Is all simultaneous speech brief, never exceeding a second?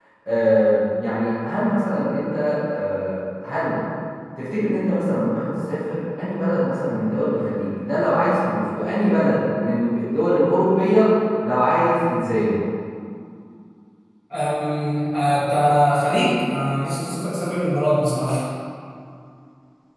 Yes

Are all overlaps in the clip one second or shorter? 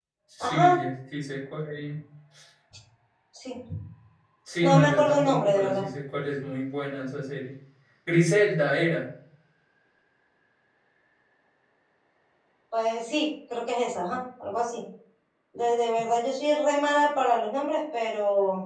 No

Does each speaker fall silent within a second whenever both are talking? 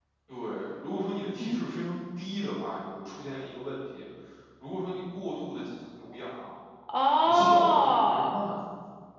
No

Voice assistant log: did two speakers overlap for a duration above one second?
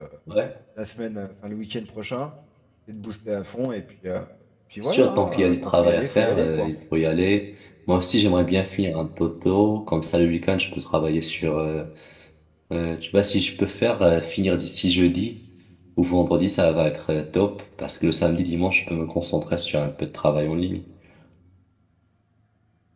Yes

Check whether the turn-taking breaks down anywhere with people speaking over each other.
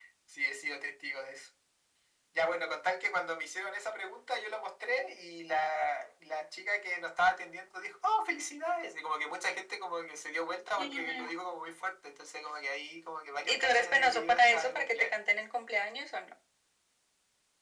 Yes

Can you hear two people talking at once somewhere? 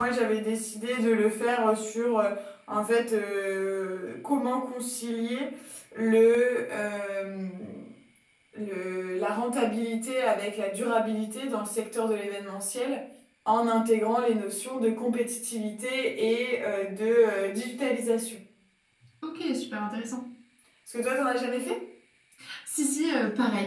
No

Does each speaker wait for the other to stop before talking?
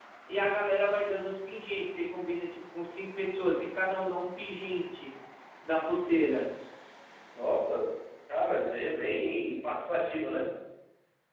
Yes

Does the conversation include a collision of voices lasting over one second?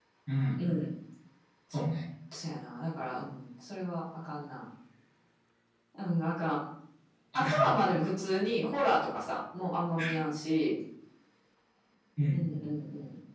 No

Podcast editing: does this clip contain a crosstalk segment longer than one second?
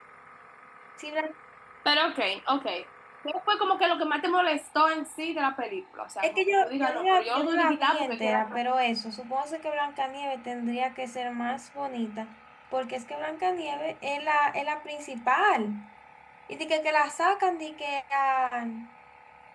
Yes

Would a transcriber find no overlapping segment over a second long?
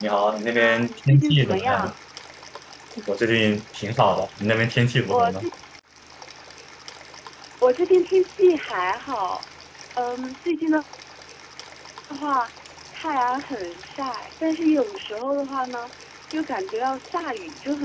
No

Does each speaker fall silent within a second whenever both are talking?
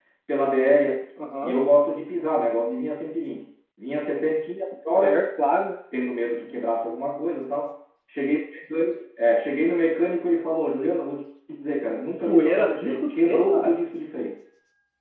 No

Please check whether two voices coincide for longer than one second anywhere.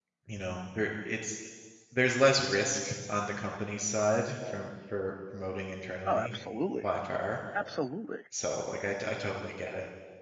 No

